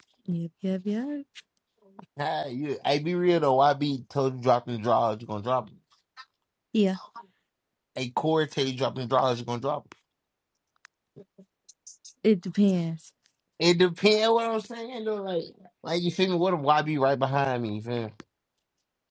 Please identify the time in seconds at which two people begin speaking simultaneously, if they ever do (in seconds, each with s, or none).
none